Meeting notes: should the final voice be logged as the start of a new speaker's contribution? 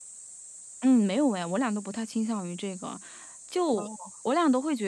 No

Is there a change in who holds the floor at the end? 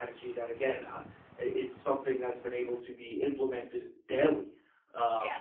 No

